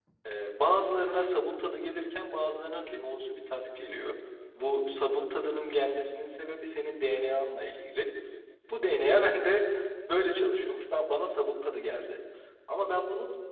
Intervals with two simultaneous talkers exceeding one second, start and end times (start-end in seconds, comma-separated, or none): none